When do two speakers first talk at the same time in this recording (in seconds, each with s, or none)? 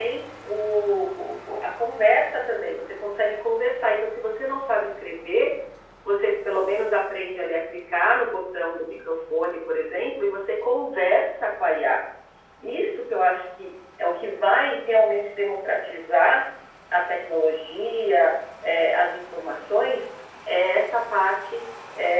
none